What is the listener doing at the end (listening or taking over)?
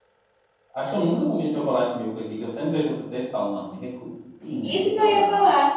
taking over